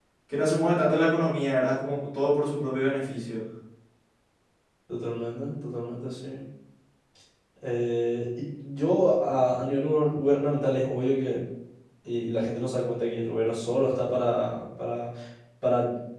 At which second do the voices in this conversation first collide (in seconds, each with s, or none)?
none